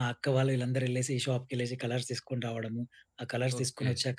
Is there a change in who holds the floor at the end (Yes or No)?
Yes